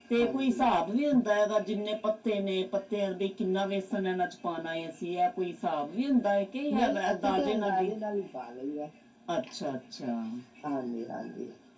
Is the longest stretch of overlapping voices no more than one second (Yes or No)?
No